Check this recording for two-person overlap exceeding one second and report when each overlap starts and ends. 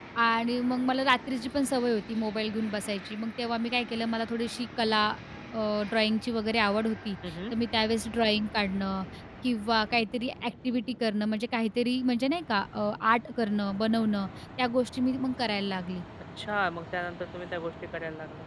none

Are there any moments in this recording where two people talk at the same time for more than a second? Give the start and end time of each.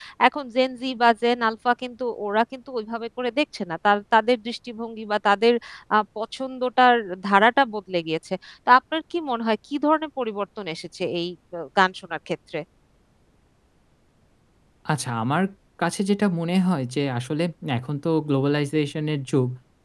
none

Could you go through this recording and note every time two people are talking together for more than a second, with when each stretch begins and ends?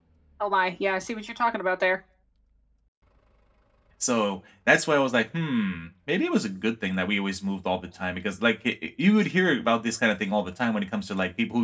none

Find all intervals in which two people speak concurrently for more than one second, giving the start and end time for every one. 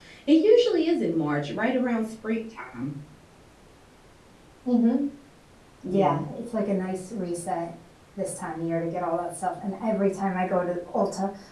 none

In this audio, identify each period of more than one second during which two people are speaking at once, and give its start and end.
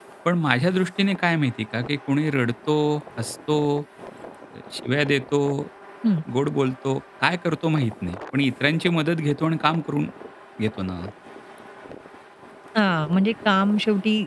none

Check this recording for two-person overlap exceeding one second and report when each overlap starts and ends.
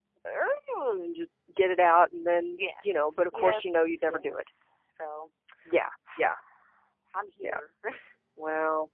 2.6-4.4

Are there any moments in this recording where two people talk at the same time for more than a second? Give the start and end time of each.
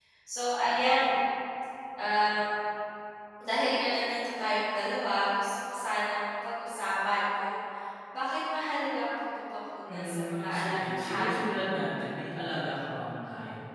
9.9-11.4

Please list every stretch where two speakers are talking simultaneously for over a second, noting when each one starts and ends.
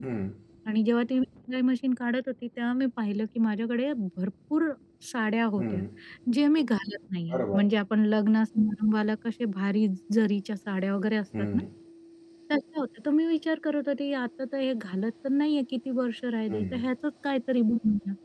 none

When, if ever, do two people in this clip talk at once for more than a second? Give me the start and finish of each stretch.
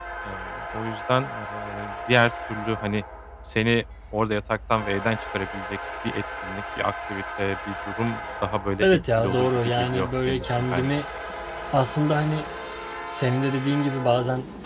8.8-11.0

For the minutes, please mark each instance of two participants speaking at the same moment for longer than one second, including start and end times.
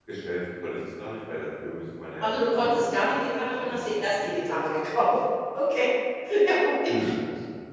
2.2-4.9

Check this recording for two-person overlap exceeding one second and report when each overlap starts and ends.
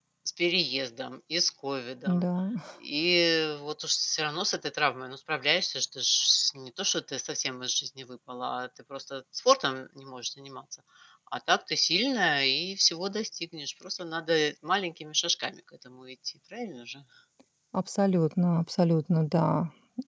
none

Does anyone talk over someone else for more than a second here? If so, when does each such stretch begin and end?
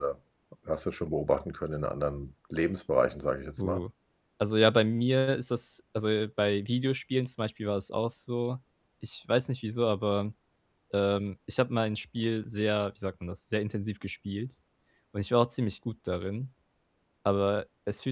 none

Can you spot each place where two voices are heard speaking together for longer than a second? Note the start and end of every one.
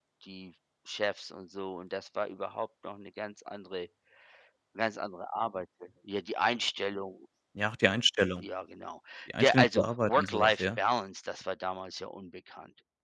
9.4-10.8

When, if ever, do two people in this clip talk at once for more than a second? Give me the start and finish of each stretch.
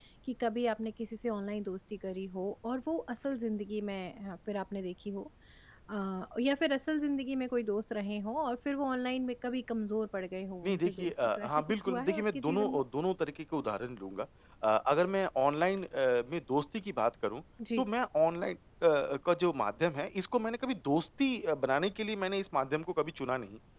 10.6-12.8

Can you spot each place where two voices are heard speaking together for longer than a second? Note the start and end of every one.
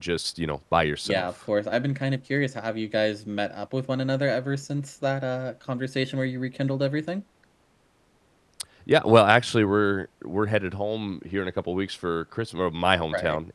none

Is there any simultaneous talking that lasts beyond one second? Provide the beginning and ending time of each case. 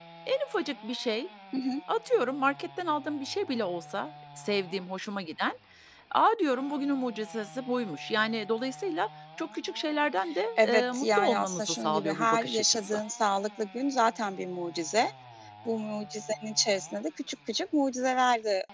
10.6-13.0

